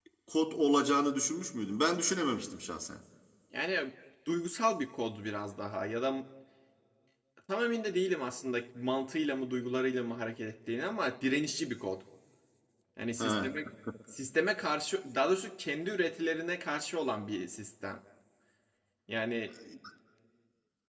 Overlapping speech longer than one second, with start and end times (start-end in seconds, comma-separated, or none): none